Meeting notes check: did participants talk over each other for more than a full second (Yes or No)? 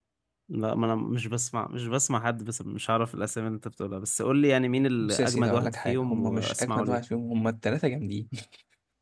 Yes